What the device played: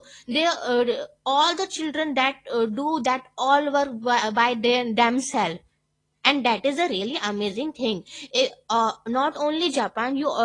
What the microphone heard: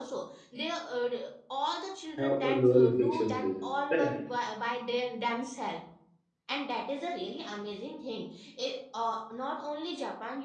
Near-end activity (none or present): present